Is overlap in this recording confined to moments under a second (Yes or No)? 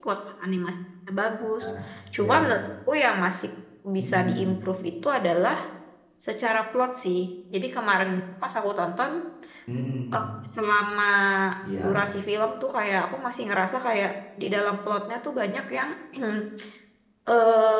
Yes